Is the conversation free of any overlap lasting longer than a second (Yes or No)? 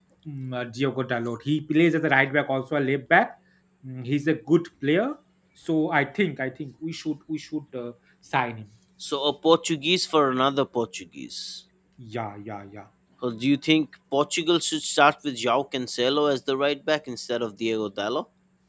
Yes